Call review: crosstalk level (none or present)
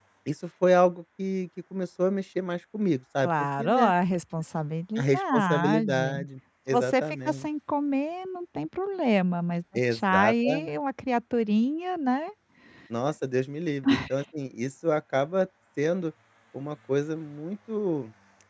present